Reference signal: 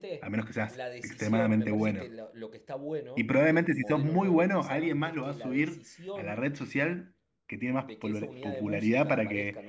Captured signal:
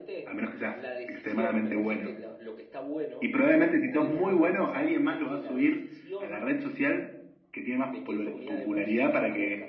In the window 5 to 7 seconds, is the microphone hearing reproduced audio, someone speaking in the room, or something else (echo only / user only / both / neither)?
echo only